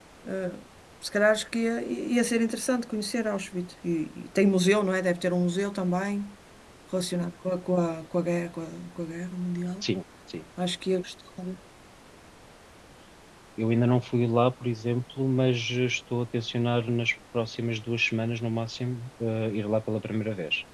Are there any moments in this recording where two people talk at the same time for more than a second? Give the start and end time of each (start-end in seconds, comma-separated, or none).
none